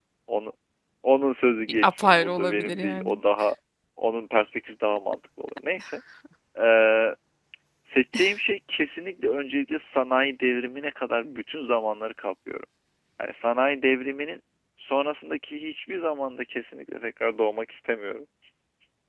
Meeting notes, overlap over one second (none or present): present